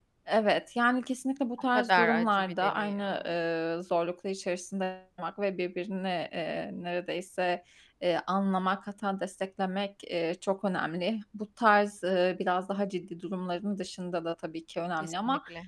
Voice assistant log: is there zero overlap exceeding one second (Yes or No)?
No